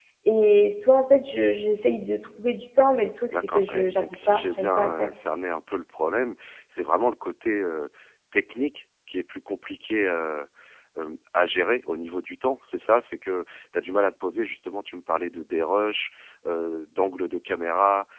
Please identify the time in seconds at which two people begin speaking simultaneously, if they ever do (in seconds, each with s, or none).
3.3 s